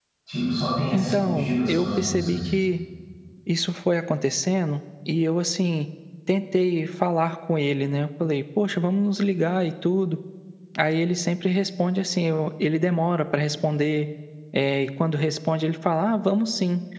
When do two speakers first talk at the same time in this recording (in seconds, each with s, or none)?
0.9 s